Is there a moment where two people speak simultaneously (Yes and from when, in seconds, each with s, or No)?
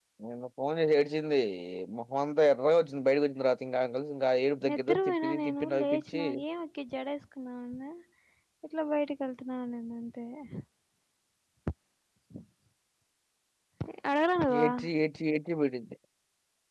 Yes, from 4.7 s